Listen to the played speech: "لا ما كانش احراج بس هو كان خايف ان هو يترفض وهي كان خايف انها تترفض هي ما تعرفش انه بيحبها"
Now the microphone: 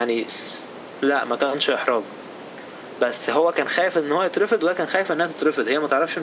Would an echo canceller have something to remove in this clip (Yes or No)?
Yes